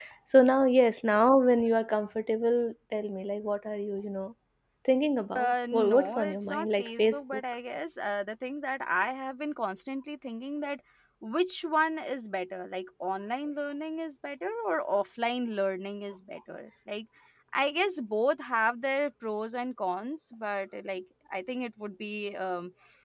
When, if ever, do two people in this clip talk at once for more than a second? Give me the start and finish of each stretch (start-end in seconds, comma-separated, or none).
5.4-7.4